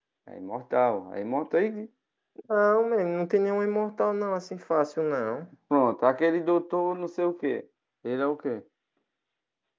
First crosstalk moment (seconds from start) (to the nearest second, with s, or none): none